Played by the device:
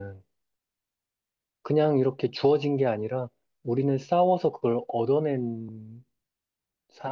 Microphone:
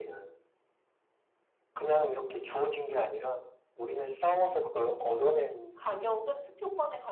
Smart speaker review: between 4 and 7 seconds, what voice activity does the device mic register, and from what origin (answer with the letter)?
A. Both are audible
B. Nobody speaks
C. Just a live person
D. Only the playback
A